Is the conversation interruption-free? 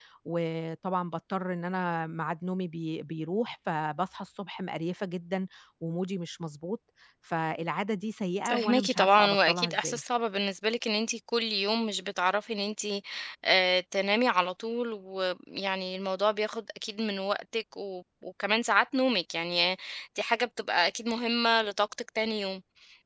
No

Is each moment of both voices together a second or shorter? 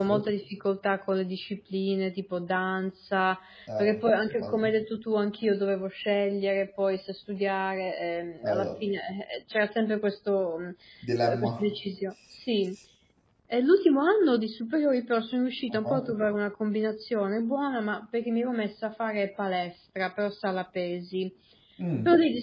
Yes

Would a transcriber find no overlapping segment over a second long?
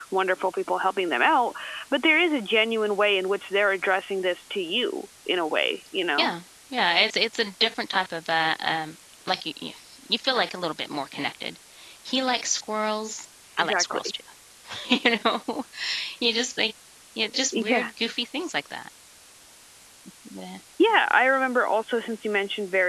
Yes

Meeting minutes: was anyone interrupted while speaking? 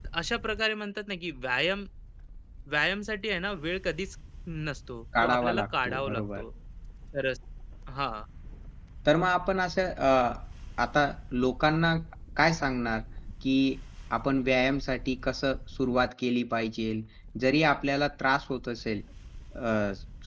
Yes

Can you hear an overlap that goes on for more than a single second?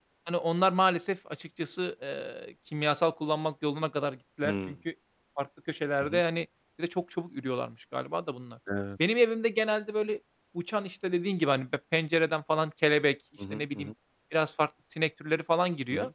No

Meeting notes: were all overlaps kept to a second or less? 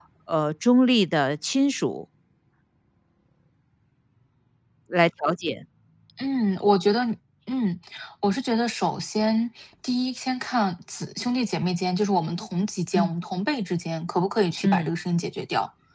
Yes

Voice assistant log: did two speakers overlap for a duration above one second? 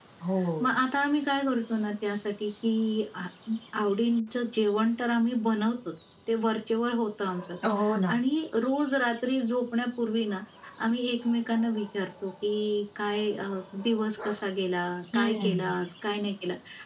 No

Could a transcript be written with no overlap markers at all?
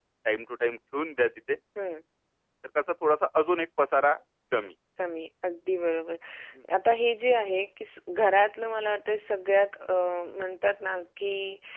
Yes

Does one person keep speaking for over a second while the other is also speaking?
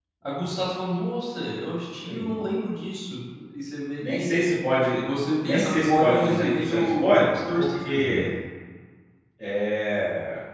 Yes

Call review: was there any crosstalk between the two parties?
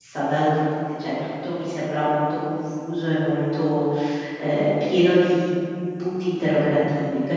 No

